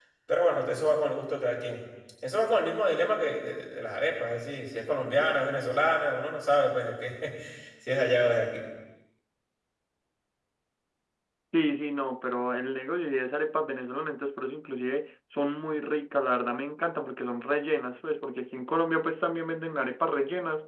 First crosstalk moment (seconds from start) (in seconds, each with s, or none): none